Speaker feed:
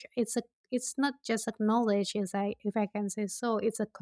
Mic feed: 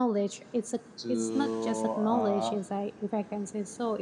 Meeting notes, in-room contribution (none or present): present